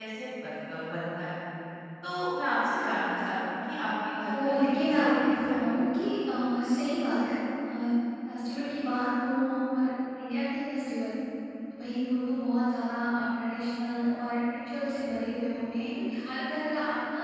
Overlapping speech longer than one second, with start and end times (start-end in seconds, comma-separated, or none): 4.3-5.7